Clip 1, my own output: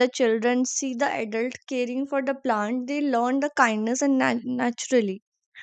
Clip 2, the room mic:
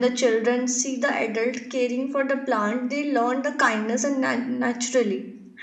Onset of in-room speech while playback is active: none

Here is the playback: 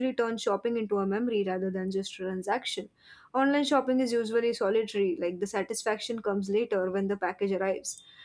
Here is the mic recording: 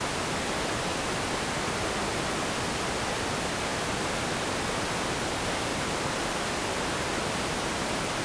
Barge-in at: none

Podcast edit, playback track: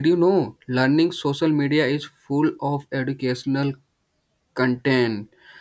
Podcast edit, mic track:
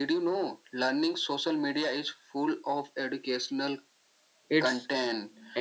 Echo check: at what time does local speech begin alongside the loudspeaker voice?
4.5 s

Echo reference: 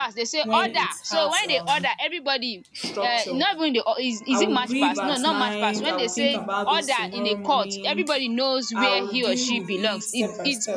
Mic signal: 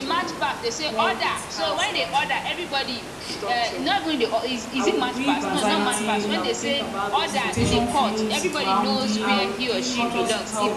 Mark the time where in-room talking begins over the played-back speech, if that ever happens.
5.4 s

